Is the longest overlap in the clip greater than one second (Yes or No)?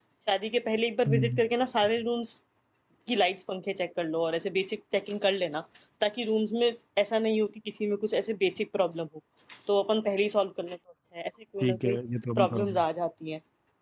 No